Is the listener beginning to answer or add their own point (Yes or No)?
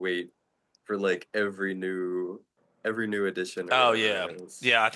Yes